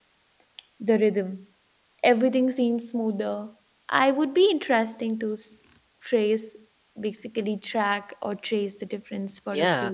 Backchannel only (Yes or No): No